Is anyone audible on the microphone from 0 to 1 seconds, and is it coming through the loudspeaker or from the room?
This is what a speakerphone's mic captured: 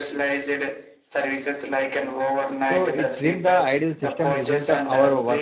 echo only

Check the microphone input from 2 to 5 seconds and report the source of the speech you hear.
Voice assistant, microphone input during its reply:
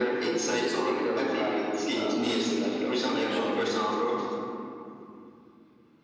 echo only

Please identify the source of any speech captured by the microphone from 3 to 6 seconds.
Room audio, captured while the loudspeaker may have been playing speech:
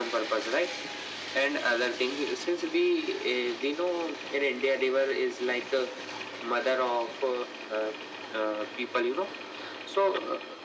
echo only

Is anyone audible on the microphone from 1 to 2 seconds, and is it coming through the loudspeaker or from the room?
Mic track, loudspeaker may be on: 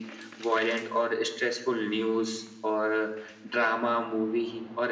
echo only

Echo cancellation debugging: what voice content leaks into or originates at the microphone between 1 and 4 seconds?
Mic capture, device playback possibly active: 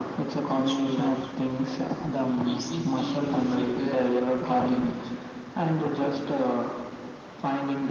echo only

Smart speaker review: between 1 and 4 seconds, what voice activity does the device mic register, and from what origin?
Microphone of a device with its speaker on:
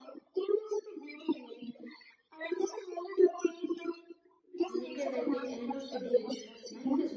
echo only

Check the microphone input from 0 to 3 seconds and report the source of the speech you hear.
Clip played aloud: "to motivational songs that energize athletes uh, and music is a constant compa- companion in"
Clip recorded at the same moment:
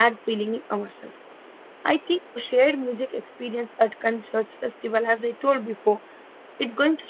user only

